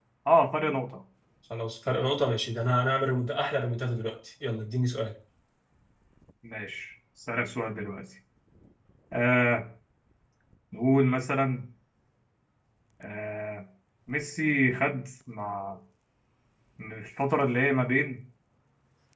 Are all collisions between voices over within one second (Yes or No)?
Yes